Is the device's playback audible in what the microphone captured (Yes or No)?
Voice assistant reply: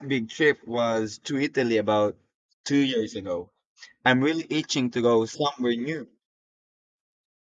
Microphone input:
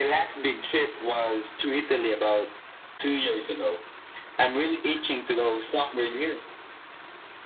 Yes